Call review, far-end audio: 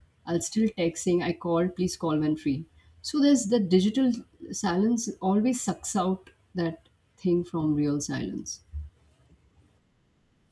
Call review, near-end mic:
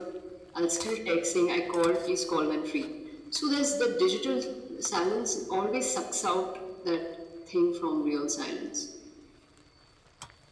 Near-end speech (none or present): none